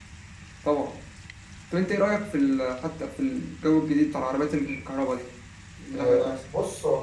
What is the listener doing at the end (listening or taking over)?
taking over